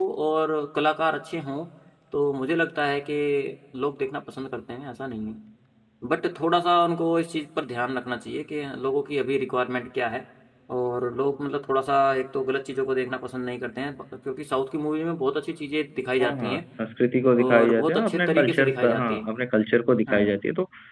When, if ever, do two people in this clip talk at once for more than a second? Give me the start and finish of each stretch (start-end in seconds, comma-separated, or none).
17.4-19.2